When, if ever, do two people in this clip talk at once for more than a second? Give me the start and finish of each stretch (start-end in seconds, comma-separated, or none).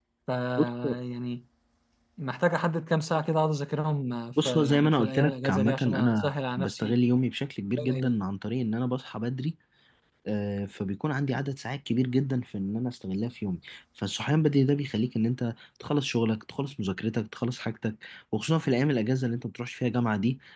4.4-7.1